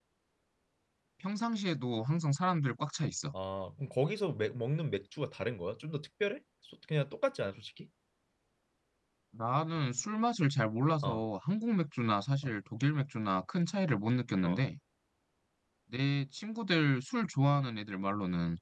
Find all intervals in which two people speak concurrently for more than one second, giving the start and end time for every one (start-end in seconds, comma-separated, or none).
none